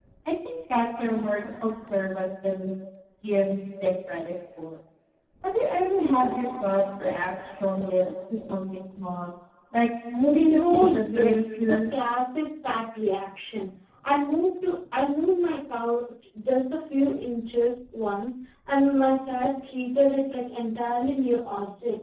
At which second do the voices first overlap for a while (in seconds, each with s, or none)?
10.2 s